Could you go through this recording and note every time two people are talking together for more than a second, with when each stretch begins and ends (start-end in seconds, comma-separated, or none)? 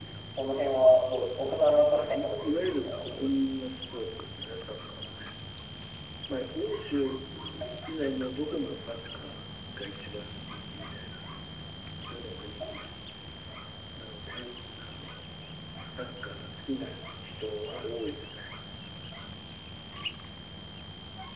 1.5-3.3